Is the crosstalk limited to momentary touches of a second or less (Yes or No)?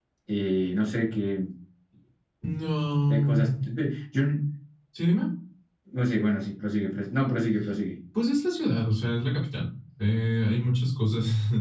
Yes